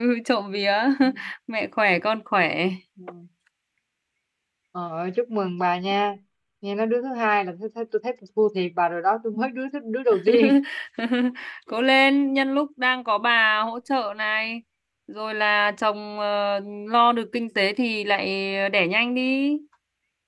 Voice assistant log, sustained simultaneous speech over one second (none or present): none